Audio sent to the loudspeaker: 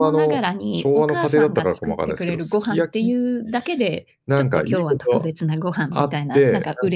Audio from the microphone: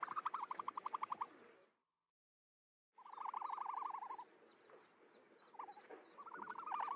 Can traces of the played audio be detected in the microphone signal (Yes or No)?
No